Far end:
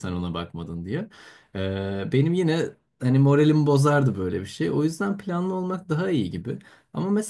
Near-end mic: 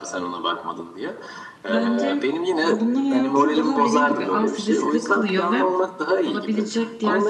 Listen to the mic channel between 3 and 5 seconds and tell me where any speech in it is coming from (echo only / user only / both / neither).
both